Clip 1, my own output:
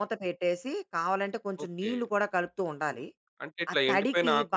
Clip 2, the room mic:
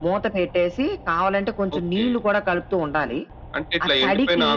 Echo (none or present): present